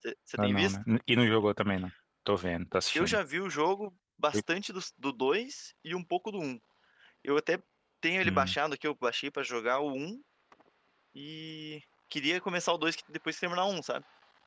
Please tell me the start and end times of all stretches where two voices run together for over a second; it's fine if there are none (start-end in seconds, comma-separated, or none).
none